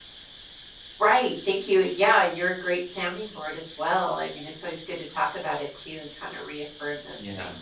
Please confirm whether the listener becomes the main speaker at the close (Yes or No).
No